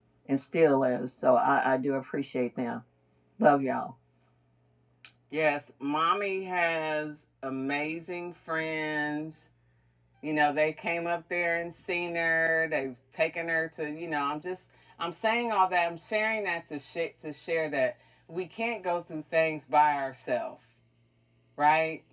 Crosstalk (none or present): none